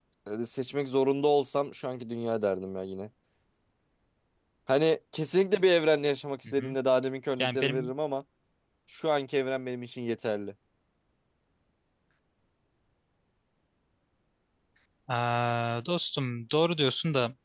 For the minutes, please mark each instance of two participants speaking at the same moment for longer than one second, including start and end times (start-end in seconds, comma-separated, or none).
none